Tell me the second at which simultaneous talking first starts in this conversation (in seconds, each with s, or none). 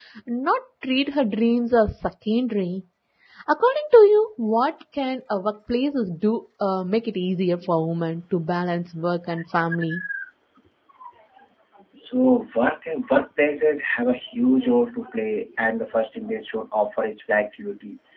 none